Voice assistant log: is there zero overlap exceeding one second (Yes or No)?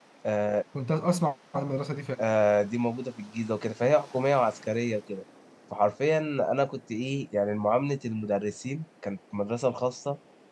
Yes